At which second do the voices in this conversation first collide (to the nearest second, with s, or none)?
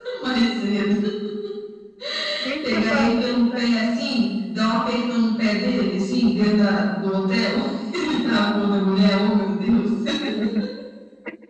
3 s